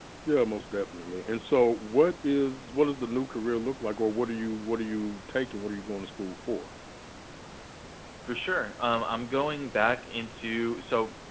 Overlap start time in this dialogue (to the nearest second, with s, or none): none